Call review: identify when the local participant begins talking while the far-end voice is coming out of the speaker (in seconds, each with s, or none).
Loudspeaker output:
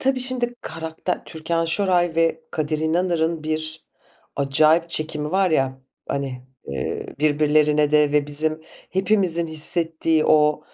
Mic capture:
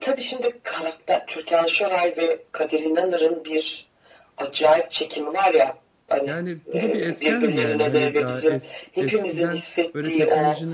6.2 s